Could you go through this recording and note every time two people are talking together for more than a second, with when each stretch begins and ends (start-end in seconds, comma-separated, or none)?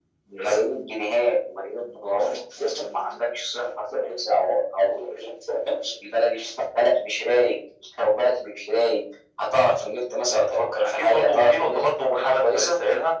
10.3-12.7